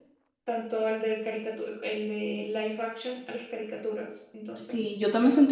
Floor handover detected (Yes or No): Yes